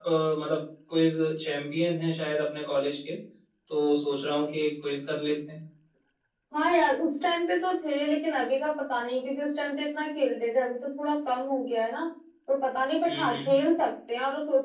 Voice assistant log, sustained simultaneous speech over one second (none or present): none